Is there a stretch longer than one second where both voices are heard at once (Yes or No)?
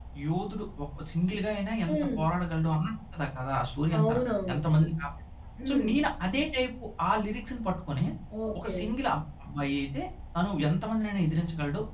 No